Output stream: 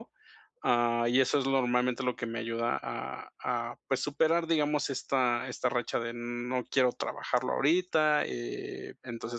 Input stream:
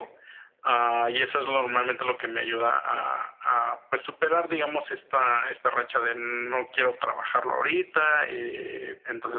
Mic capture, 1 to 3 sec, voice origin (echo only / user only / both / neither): echo only